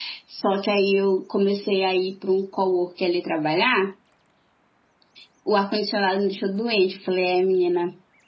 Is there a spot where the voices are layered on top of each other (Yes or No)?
No